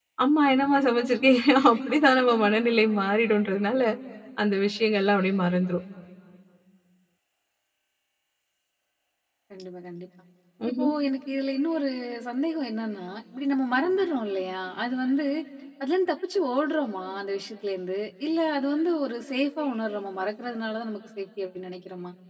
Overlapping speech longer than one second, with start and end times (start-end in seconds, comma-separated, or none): none